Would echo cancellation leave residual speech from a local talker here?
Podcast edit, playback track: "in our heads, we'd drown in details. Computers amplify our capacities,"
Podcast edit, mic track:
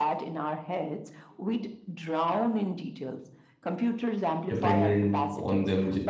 Yes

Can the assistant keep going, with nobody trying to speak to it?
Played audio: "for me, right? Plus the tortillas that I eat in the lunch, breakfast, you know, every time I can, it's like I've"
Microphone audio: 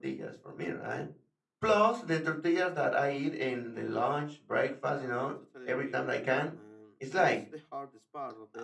No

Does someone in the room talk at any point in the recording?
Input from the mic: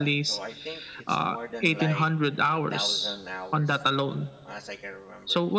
Yes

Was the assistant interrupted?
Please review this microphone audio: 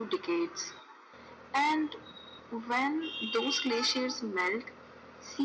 No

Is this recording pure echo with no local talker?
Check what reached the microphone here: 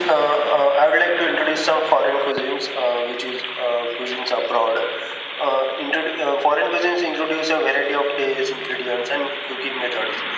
Yes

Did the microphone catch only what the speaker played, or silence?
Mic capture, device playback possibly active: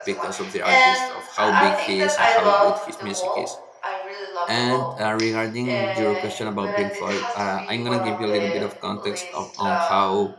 No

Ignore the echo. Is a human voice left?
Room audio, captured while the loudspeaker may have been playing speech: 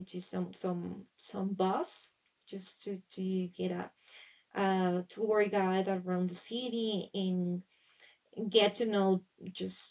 Yes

